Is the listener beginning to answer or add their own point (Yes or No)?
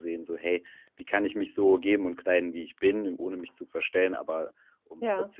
No